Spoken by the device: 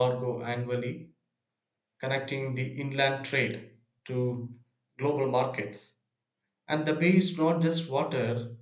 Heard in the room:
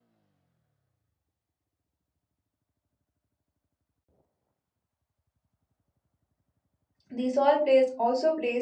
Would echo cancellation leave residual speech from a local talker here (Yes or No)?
Yes